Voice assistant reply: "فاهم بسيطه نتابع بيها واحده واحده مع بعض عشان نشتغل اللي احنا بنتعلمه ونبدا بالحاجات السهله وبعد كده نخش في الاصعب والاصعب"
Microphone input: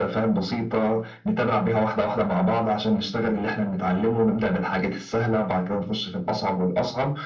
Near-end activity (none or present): none